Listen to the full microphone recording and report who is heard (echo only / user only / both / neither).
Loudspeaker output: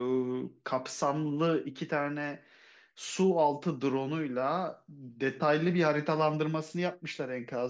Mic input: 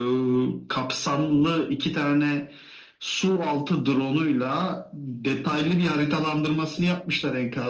echo only